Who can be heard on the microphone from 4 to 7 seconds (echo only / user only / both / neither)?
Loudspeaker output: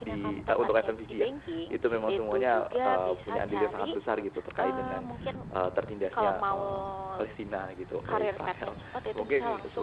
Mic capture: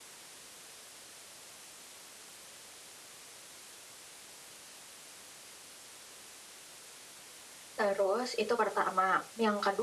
neither